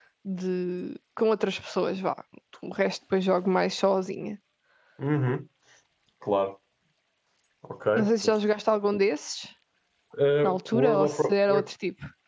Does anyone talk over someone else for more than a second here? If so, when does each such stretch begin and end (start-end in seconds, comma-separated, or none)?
10.4-11.7